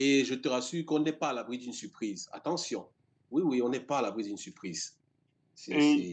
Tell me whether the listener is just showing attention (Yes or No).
No